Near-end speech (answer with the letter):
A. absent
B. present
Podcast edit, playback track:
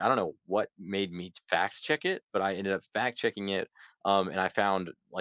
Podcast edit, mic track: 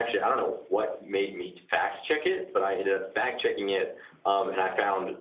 A